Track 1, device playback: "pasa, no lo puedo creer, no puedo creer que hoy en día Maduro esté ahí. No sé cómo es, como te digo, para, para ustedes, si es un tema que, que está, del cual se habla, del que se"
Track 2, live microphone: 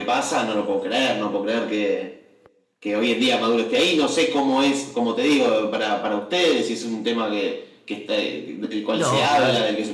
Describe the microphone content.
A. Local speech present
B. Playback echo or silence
A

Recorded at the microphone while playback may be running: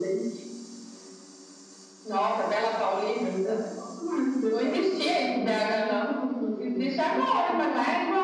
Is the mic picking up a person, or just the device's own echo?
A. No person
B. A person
A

